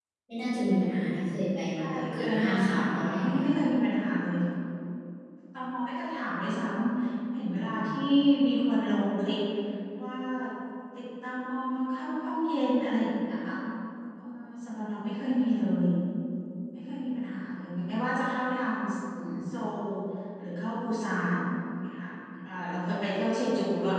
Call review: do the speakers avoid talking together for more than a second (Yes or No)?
No